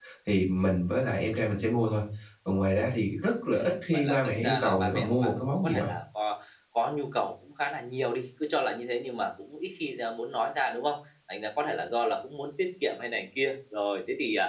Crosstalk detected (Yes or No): Yes